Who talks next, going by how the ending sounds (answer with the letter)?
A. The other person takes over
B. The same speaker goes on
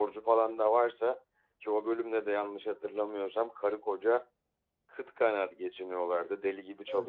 B